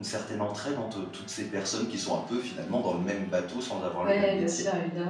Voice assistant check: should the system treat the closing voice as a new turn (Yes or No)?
Yes